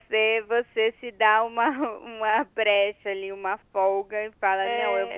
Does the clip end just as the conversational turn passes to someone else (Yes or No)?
No